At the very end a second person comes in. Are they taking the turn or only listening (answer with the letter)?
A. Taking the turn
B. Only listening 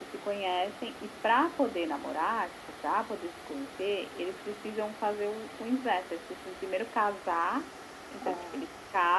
B